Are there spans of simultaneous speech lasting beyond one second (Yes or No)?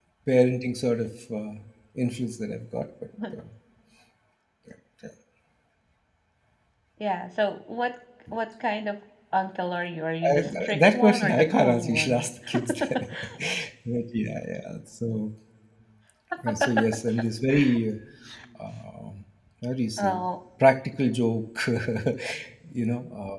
Yes